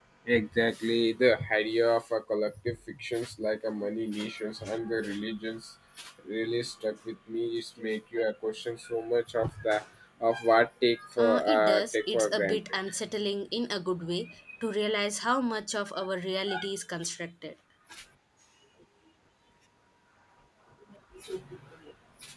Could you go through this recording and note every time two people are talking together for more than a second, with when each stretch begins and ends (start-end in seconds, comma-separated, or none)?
11.2-12.8